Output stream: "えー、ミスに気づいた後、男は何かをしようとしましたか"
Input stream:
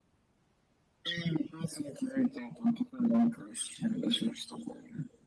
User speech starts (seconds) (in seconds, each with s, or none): none